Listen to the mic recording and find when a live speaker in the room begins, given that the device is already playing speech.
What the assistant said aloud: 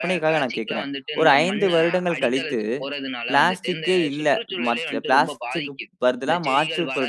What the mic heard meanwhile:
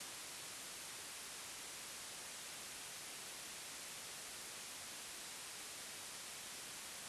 none

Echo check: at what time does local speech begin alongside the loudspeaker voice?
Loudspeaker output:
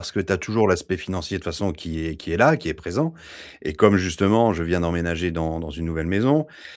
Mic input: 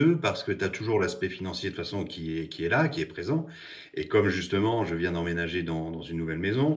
none

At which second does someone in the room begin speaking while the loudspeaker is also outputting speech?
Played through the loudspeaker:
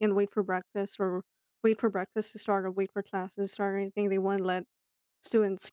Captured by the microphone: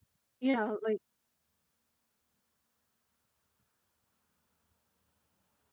0.4 s

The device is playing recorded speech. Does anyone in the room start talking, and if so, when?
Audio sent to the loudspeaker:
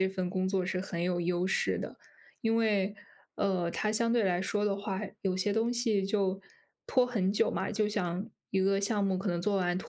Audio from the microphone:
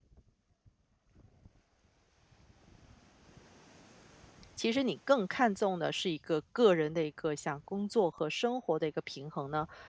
4.5 s

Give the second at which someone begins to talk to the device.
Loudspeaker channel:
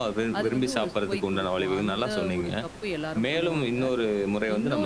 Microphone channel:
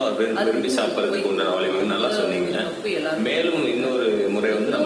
none

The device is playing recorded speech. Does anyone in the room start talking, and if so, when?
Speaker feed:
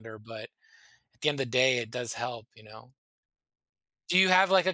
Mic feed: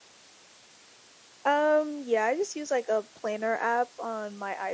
1.4 s

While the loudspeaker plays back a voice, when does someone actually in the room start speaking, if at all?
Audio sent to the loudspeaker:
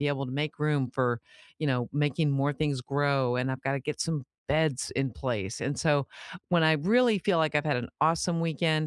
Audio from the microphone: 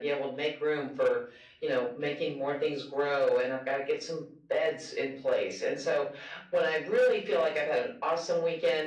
none

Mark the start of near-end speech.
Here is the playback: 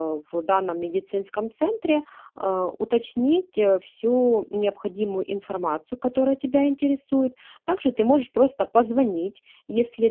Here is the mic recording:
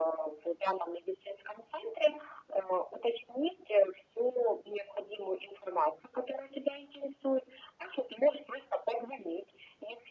none

